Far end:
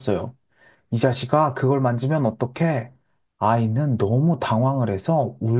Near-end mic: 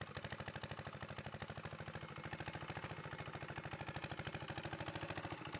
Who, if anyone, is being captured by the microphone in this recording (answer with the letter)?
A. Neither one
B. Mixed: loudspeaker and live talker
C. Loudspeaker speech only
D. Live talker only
A